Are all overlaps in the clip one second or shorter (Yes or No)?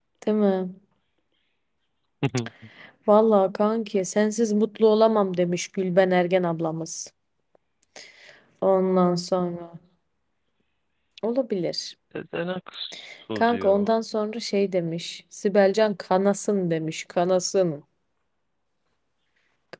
Yes